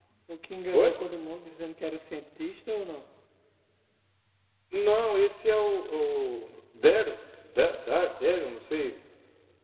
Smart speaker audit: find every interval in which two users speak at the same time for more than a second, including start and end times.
none

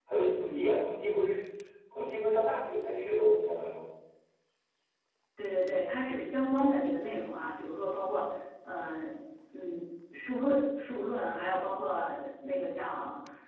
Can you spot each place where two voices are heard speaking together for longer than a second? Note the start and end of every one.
none

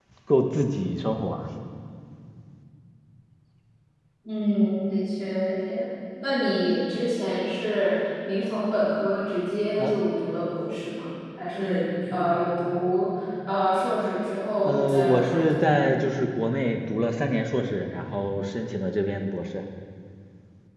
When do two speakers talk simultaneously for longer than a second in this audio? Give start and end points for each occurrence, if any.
14.7-15.8

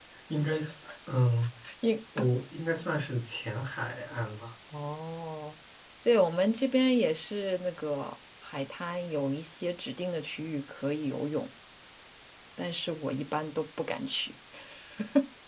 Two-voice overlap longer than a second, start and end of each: none

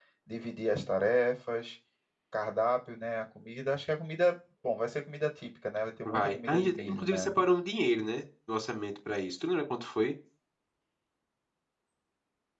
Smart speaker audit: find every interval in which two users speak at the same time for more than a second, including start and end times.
6.0-7.3

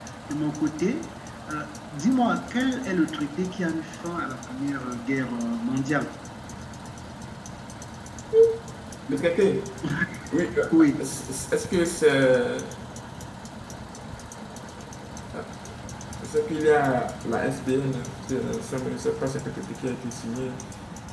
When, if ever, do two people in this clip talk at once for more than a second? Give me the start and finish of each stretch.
none

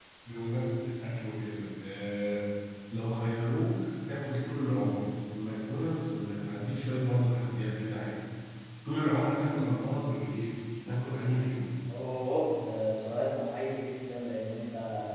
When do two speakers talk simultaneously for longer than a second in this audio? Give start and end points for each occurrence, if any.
none

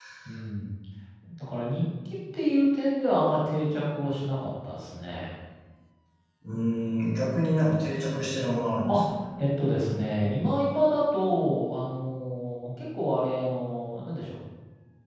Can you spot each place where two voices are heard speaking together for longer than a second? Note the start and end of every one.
none

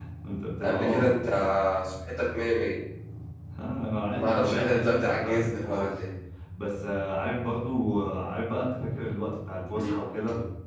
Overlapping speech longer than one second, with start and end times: 4.2-5.9

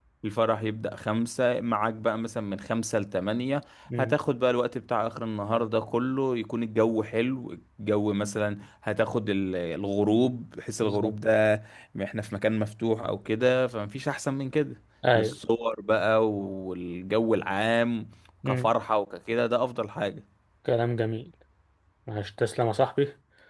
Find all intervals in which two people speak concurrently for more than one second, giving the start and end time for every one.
none

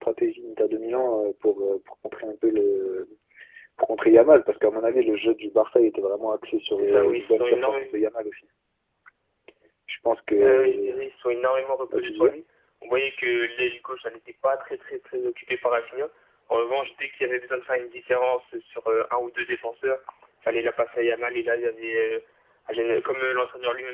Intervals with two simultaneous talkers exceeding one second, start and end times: 6.8-8.0

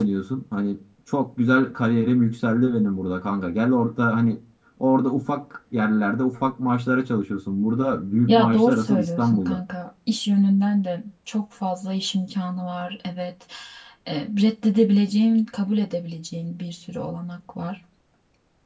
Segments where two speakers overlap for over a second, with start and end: 8.3-9.6

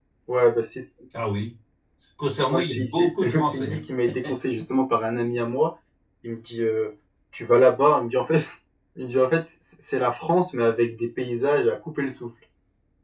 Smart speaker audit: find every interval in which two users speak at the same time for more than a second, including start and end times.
2.5-3.8

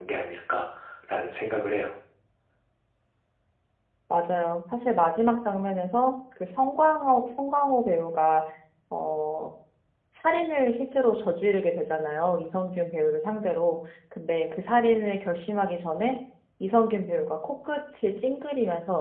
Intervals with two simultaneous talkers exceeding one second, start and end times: none

